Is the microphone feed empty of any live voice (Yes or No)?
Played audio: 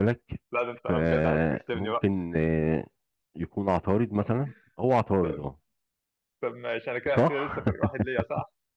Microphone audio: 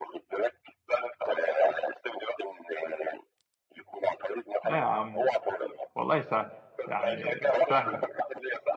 No